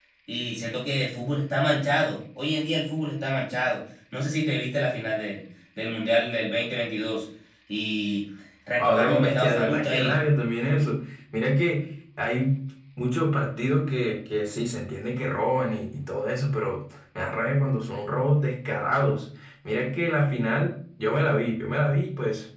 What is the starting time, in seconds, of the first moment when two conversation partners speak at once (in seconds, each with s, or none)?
8.8 s